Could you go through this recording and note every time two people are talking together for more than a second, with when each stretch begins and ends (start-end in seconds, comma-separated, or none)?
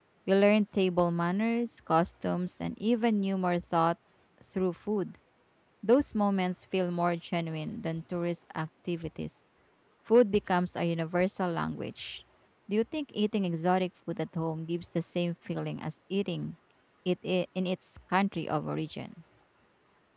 none